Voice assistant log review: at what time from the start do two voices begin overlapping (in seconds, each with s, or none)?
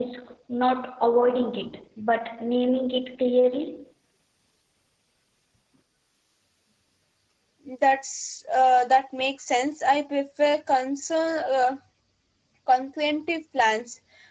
none